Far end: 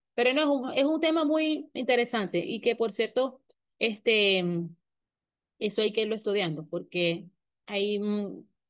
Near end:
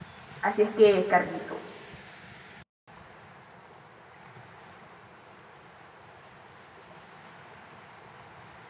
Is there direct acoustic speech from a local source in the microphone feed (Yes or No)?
Yes